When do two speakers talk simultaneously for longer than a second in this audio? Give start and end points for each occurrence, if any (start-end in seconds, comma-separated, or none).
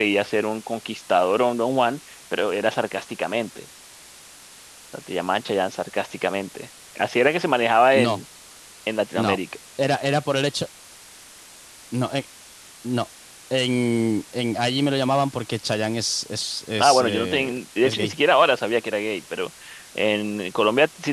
16.8-18.1